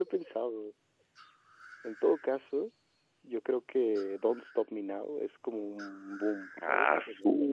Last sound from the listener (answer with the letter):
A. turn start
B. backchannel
A